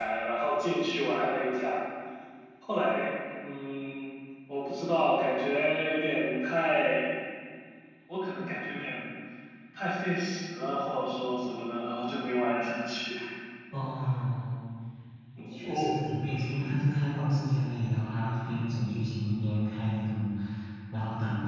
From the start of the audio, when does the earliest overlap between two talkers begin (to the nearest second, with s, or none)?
16 s